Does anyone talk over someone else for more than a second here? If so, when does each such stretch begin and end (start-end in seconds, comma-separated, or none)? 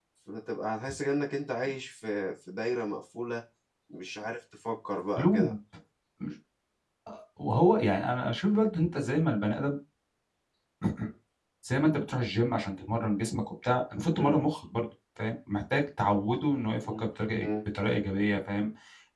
none